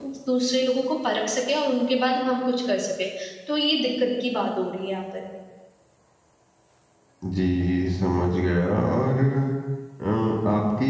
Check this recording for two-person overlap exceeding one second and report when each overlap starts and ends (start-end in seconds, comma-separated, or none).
none